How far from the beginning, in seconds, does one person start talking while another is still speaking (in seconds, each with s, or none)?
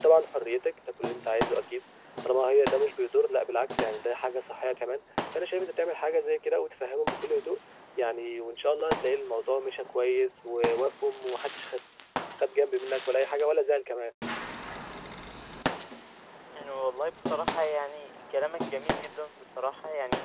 none